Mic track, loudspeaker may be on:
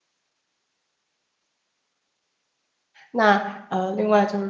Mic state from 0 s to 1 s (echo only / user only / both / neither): neither